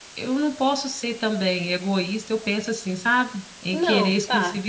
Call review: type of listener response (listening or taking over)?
listening